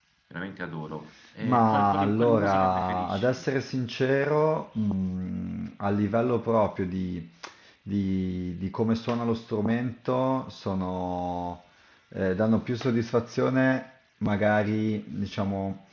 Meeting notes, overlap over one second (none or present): present